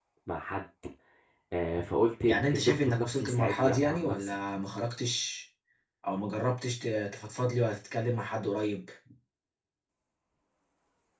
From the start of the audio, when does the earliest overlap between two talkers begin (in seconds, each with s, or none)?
2.3 s